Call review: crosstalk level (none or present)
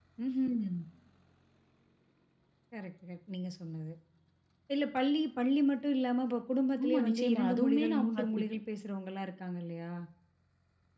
present